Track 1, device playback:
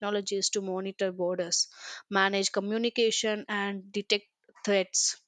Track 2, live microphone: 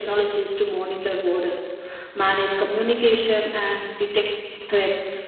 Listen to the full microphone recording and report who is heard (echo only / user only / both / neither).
echo only